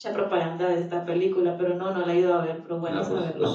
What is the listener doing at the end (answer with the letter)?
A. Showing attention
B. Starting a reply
B